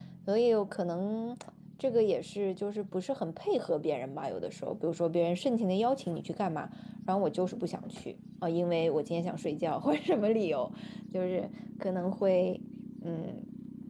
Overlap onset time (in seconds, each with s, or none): none